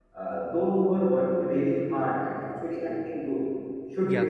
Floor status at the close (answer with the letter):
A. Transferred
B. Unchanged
B